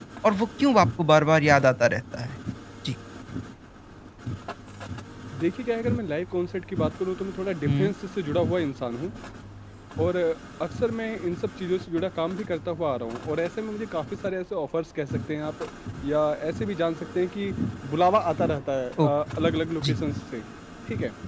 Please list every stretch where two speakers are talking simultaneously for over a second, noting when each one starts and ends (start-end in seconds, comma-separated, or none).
none